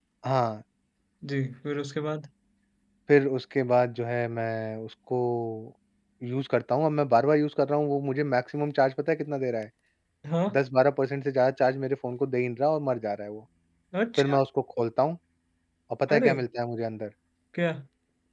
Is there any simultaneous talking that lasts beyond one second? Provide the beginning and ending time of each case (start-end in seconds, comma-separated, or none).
none